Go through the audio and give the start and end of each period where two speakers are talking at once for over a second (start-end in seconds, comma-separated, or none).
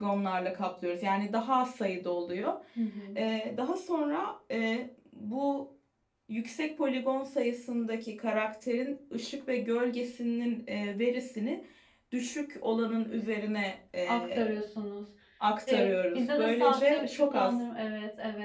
15.7-17.6